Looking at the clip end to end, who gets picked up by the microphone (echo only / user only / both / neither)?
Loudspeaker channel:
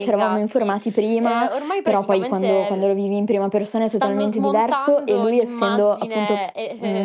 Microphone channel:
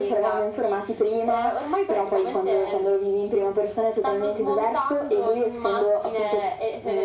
echo only